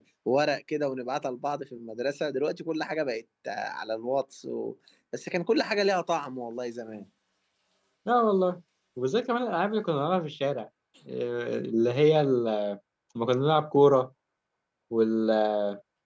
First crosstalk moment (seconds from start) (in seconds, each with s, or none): none